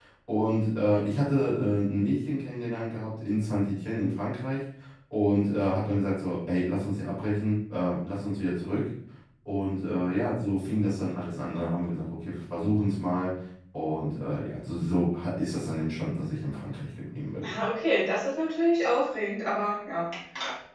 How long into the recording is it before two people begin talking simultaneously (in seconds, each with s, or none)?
none